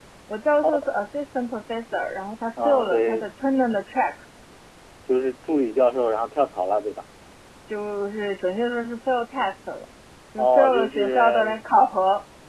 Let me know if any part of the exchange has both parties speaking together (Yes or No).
Yes